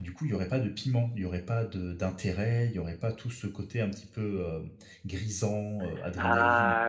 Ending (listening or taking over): taking over